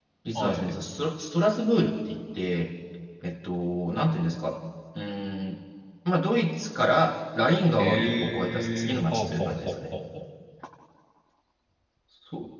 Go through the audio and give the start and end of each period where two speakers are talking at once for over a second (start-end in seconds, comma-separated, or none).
7.8-9.7